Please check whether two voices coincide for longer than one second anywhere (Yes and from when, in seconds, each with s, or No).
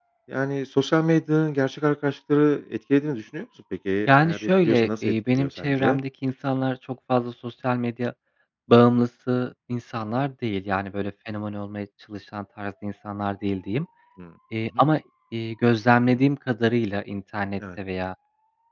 Yes, from 4.1 s